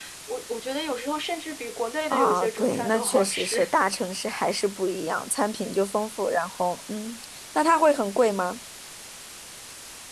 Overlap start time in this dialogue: 2 s

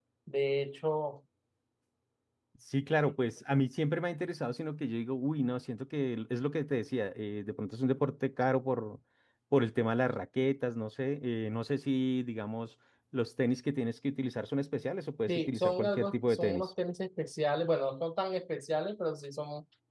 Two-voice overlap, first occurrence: 15 s

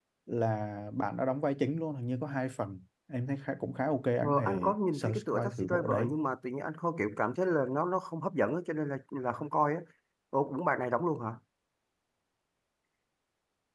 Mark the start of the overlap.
4 s

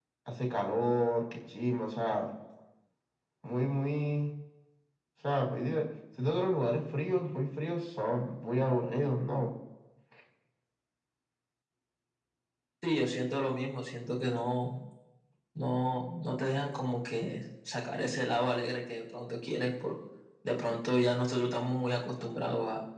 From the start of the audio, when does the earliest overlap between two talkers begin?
none

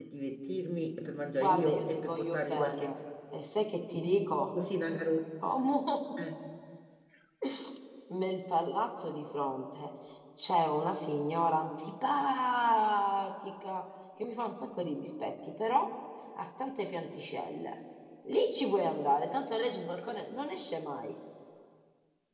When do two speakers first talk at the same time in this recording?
1 s

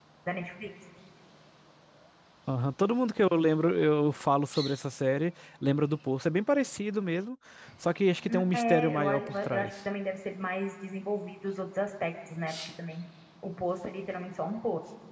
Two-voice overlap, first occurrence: 8 s

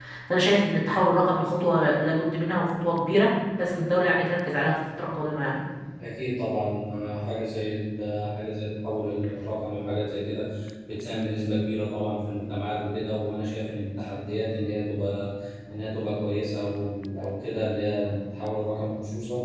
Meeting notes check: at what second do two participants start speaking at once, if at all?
none

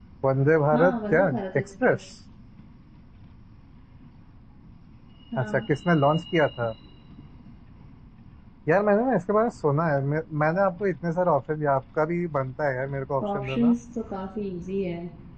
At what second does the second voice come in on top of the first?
1 s

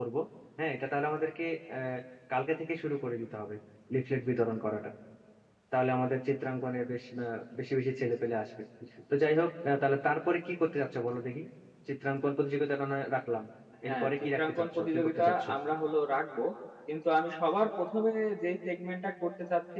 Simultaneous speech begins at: 14 s

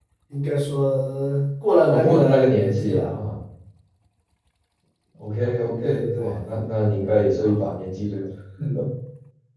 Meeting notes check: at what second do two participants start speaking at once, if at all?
2 s

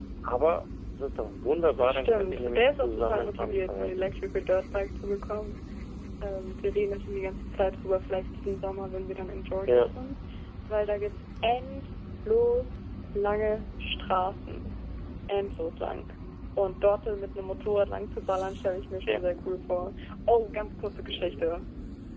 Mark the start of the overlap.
2 s

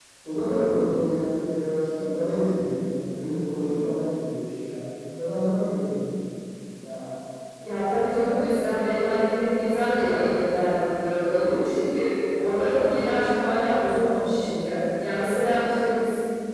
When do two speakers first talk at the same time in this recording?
none

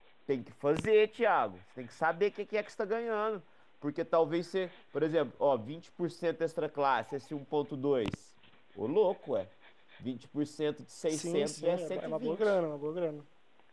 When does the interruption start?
11 s

